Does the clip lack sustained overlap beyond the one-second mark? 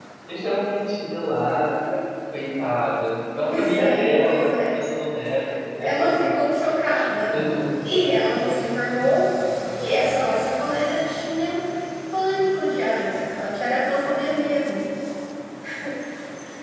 No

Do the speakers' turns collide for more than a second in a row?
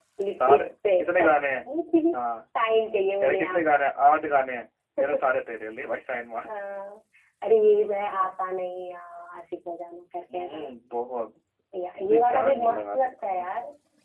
Yes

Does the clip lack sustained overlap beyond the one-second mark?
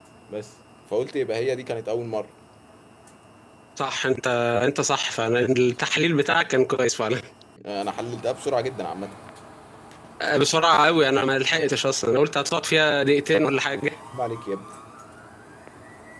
Yes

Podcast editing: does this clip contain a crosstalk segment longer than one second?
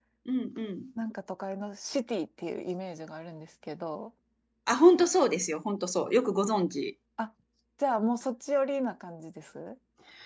No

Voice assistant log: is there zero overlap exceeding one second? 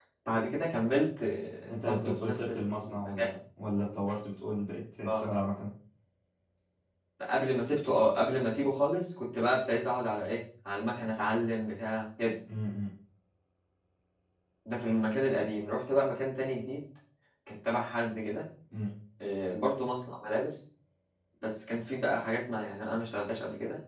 No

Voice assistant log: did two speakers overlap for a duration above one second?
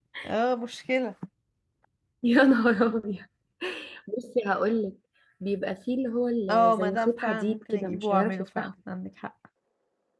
Yes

